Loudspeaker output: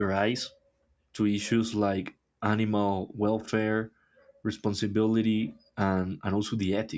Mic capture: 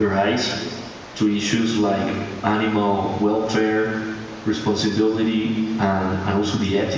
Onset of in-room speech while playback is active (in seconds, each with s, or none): none